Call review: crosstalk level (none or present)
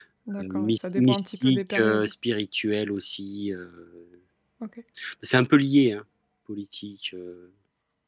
present